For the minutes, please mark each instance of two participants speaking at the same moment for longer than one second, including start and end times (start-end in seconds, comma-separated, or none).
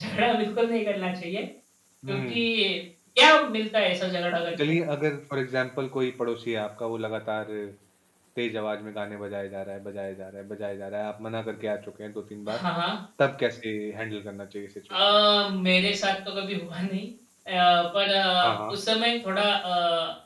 none